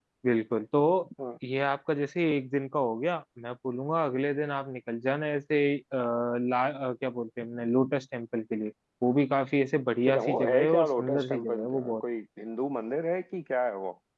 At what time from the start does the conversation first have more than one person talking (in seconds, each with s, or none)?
10.1 s